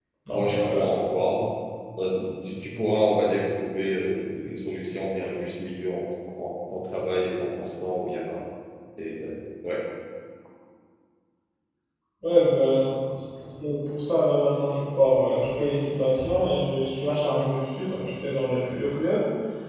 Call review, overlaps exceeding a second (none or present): none